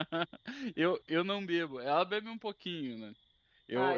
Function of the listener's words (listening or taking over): listening